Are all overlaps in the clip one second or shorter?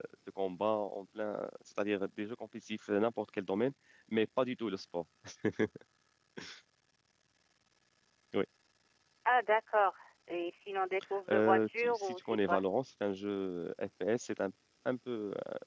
No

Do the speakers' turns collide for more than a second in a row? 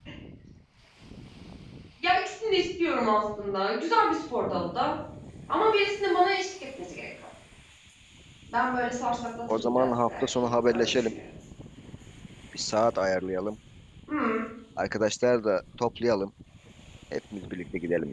Yes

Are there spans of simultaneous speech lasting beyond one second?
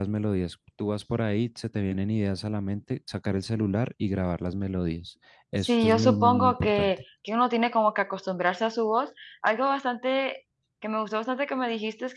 Yes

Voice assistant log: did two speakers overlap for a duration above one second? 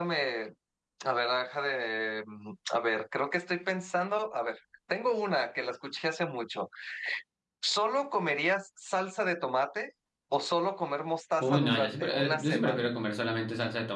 Yes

